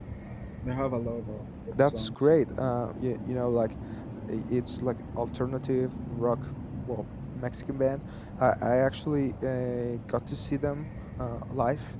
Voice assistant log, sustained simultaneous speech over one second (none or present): none